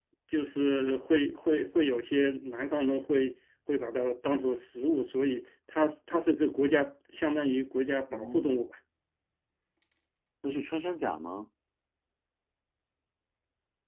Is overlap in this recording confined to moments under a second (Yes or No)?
Yes